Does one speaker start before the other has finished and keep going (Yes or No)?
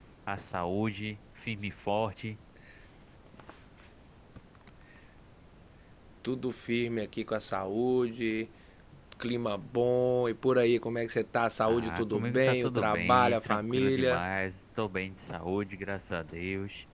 Yes